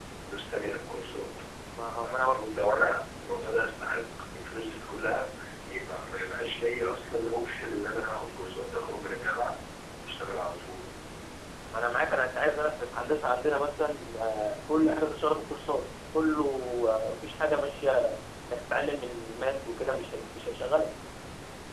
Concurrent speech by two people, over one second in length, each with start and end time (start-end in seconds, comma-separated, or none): none